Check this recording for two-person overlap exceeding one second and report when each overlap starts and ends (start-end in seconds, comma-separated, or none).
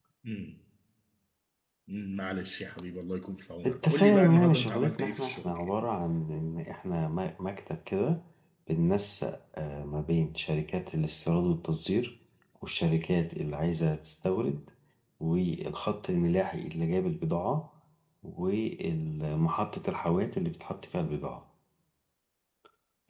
3.7-5.7